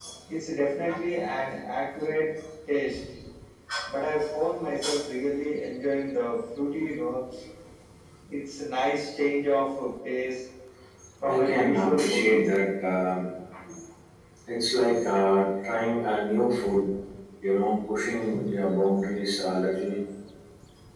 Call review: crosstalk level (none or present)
present